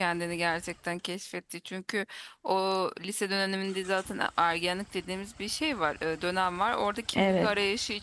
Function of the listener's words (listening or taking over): listening